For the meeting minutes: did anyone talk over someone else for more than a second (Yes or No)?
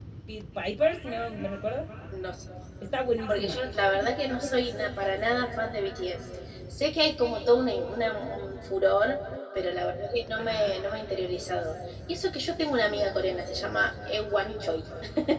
No